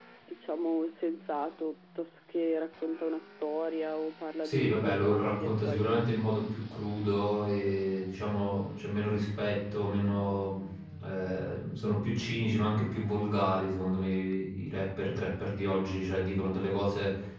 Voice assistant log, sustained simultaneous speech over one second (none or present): present